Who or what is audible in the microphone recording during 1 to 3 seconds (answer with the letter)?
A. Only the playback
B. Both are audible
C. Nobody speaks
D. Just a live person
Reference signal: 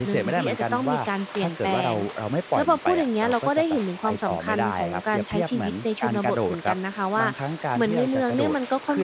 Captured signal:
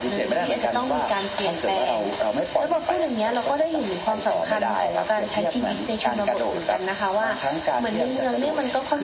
A